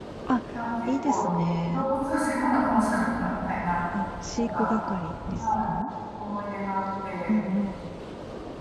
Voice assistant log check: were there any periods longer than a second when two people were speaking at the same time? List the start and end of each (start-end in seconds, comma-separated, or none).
none